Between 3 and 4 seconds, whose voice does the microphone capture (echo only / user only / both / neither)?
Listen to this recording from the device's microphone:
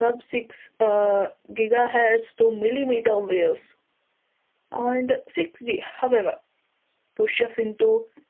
user only